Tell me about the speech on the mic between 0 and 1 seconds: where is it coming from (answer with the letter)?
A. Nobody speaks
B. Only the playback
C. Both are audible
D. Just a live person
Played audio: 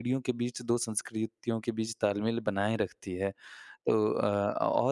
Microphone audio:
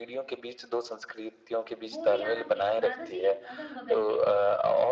B